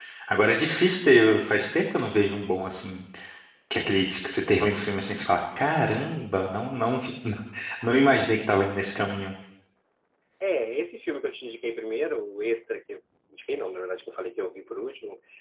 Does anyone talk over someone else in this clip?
No

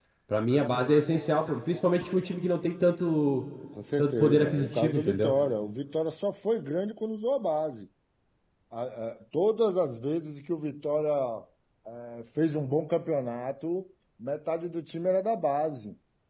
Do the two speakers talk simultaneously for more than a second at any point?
Yes, from 4.0 s

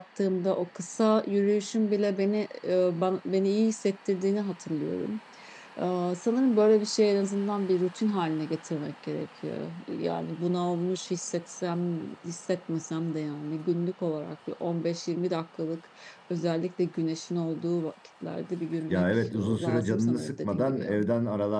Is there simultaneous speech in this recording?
Yes, from 18.9 s

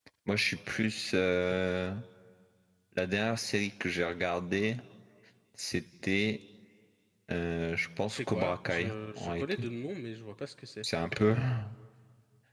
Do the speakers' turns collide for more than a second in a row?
Yes, from 8.1 s

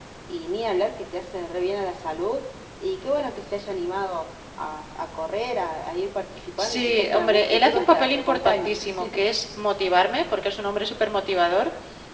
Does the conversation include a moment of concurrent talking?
Yes, from 6.6 s

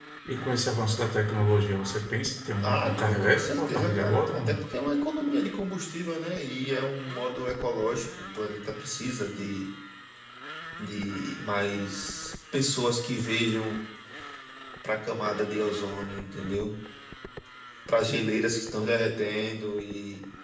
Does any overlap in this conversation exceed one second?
Yes, from 2.6 s

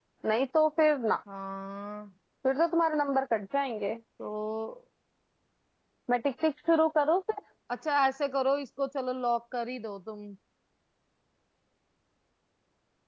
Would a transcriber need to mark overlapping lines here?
No

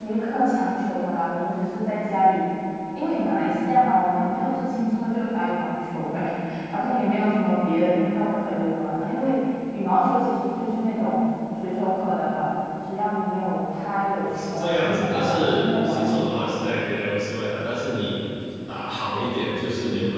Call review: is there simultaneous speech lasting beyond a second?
Yes, from 14.2 s

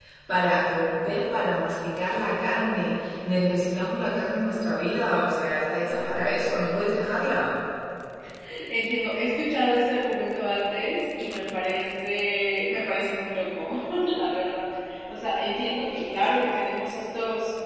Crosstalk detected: No

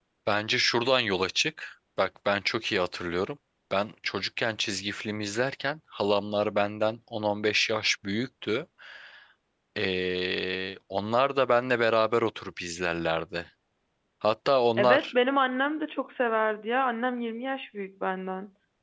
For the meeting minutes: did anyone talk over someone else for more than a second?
No

